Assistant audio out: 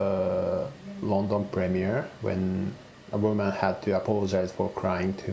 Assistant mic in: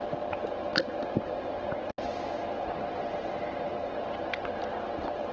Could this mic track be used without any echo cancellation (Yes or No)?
Yes